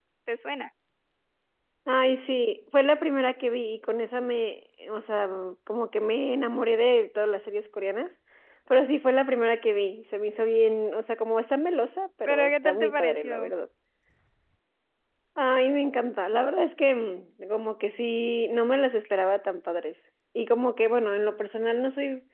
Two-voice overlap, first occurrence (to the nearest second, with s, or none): 12 s